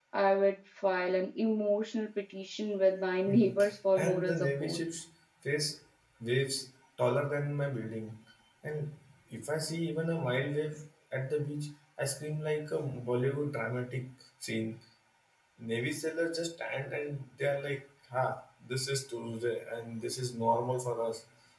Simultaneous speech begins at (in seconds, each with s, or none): 3.3 s